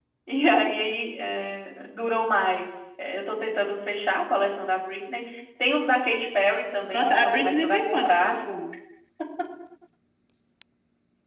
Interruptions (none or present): present